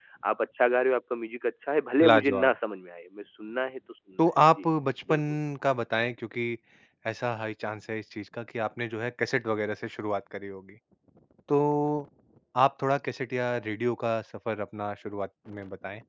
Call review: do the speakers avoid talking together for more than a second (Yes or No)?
Yes